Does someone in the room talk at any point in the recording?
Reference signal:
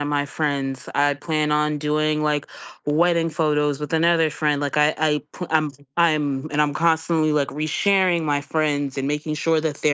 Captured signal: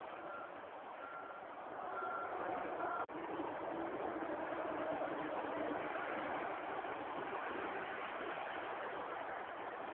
No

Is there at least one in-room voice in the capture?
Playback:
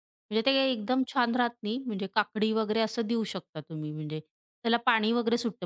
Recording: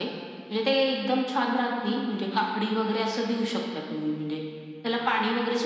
No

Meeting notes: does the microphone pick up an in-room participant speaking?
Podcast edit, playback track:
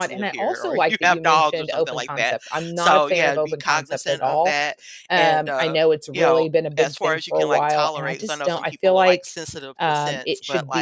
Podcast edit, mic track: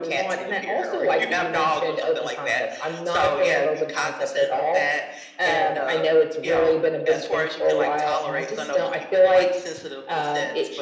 No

